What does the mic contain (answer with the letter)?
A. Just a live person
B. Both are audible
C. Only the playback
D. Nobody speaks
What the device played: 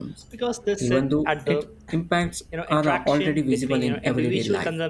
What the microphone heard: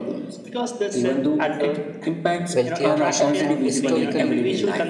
B